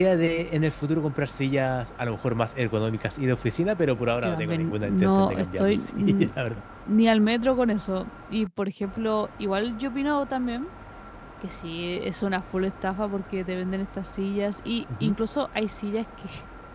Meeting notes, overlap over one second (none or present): present